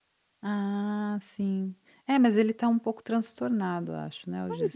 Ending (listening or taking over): taking over